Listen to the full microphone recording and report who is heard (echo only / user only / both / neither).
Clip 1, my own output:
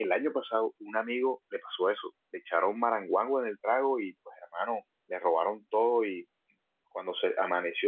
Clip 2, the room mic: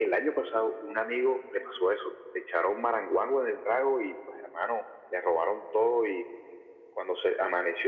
echo only